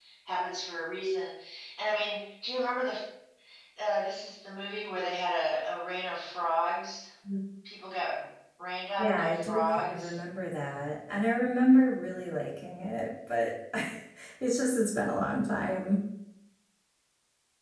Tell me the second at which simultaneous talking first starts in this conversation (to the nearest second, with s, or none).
9 s